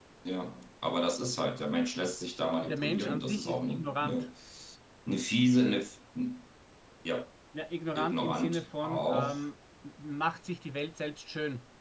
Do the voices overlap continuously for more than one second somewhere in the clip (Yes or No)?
Yes